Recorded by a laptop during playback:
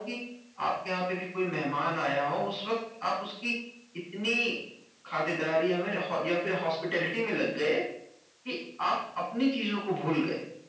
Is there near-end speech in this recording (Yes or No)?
No